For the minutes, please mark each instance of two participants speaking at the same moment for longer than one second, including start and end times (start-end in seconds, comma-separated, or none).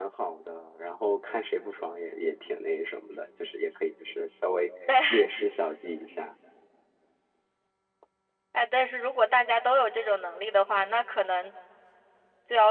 none